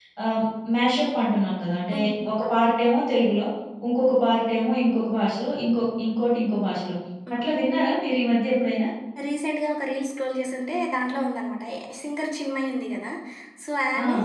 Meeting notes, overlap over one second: none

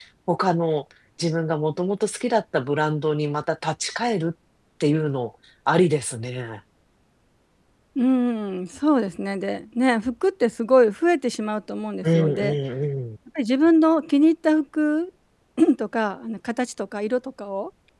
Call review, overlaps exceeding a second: none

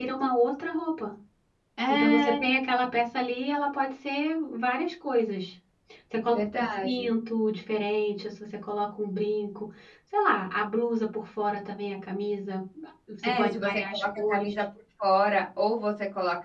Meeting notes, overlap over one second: present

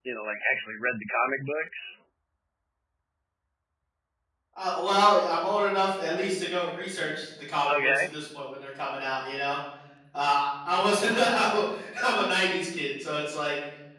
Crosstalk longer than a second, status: none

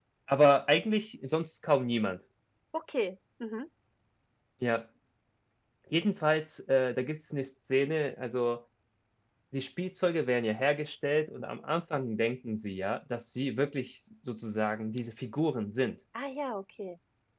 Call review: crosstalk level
none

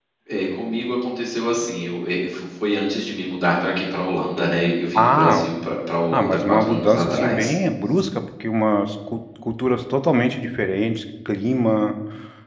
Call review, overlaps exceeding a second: present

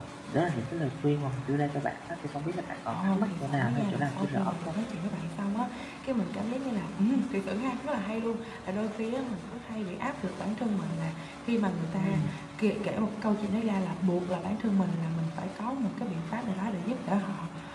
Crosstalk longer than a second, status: present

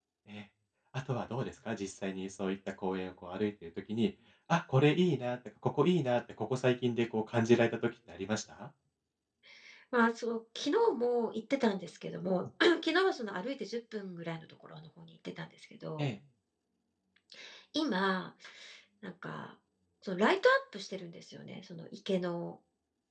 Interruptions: none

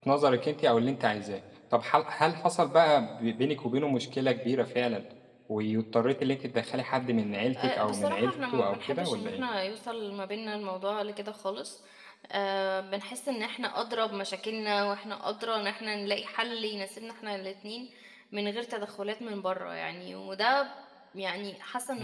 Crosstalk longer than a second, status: present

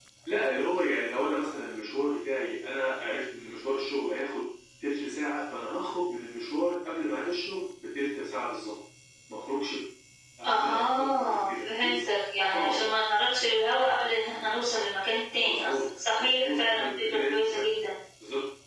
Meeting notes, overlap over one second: present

